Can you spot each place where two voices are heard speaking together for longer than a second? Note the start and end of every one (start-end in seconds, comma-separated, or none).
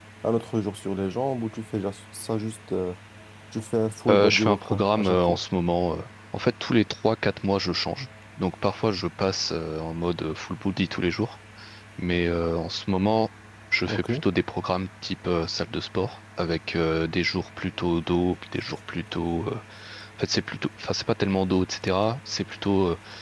4.1-5.4